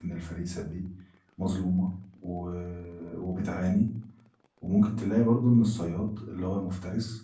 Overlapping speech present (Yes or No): No